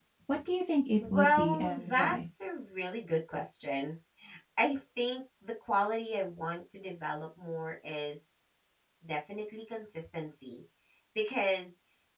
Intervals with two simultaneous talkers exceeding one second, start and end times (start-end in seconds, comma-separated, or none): 1.0-2.2